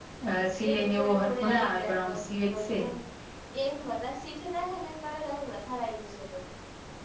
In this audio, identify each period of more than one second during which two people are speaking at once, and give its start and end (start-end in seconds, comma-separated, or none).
0.7-2.8